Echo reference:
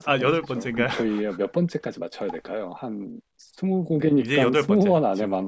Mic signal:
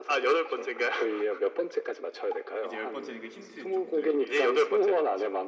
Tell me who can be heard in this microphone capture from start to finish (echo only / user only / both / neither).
both